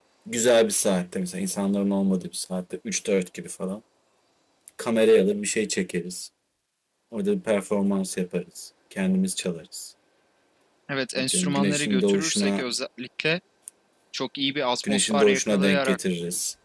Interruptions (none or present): present